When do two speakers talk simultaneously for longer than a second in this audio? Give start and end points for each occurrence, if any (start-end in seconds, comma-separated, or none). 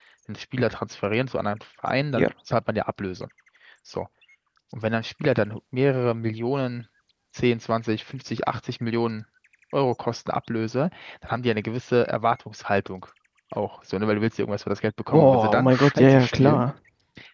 15.1-16.6